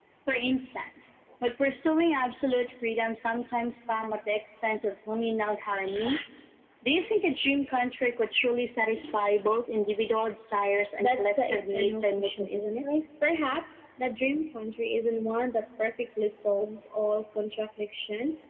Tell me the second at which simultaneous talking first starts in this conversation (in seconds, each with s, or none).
11.0 s